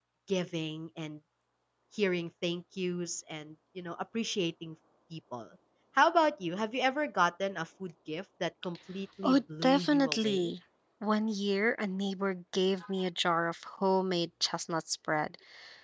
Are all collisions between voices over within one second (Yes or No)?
No